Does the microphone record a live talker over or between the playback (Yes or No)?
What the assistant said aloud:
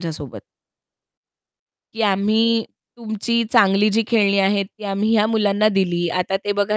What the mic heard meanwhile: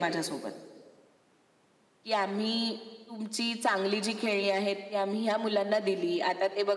No